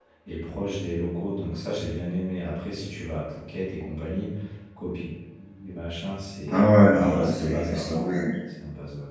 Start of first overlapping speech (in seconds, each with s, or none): 6.5 s